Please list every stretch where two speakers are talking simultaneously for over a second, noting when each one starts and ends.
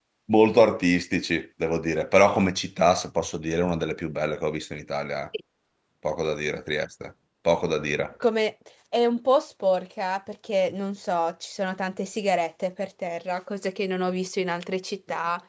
none

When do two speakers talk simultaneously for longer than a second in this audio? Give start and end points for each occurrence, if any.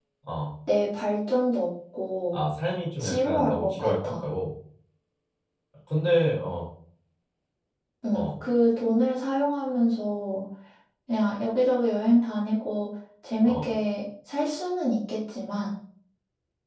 3.0-4.2

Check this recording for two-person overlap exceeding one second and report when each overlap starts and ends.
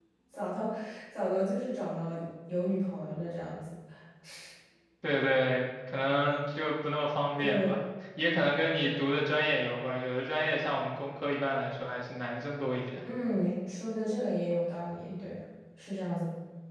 none

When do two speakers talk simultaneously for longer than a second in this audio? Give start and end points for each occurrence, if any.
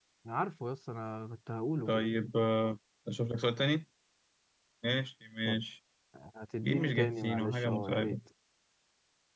6.6-8.2

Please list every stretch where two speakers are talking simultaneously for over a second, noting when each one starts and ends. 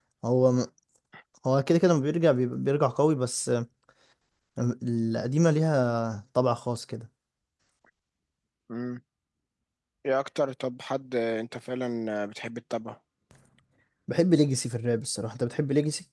none

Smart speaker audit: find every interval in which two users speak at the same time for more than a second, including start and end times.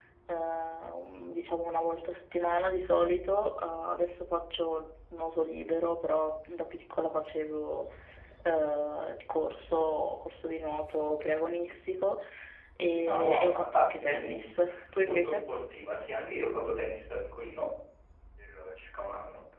13.1-14.5

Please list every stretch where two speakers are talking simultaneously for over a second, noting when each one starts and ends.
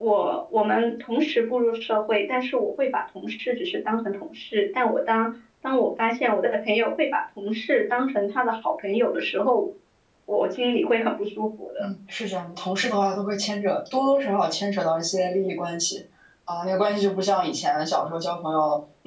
none

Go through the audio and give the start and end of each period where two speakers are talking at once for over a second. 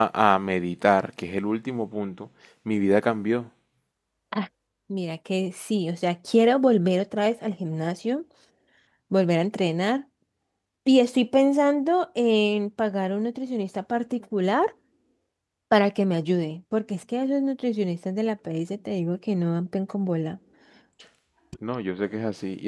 none

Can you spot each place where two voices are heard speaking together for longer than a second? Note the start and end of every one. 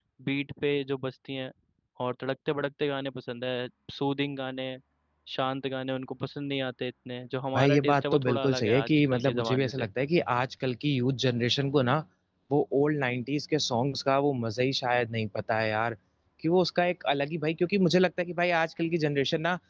7.6-9.8

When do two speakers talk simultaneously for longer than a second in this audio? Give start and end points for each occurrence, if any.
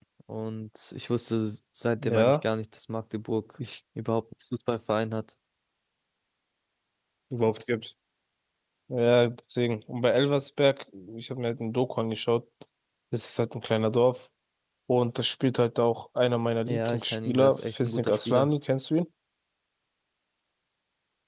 16.7-18.5

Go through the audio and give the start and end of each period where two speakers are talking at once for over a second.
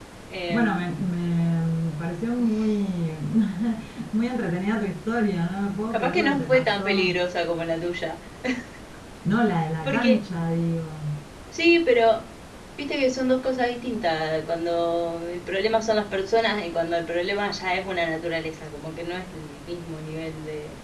5.9-7.2

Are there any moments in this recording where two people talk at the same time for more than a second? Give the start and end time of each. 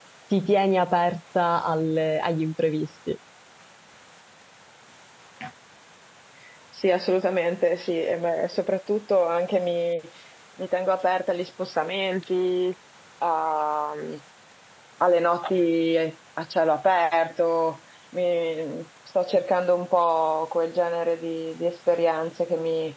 none

